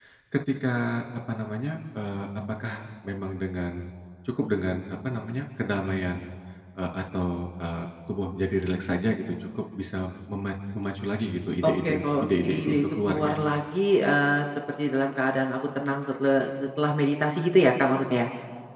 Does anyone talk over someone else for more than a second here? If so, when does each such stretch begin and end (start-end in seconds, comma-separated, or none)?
11.6-13.5